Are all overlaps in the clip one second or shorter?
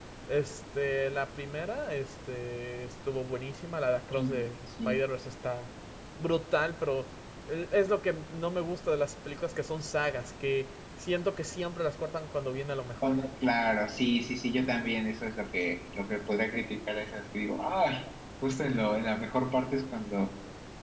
Yes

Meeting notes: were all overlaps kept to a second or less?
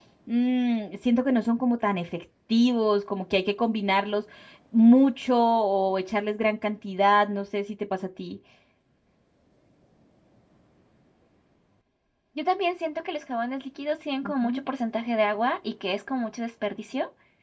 Yes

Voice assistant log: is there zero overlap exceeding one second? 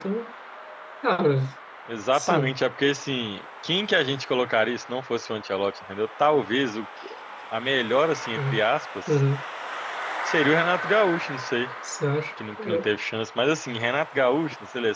Yes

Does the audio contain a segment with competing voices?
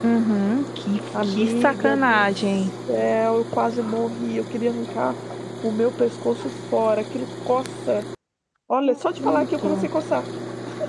Yes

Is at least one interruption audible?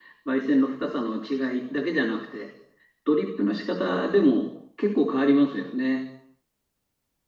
No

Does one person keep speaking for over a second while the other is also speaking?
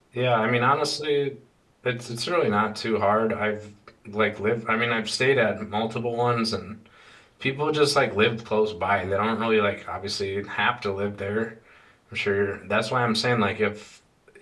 No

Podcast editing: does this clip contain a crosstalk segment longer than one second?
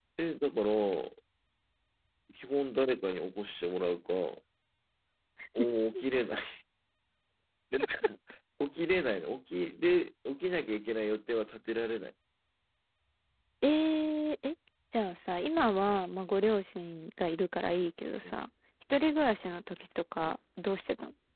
No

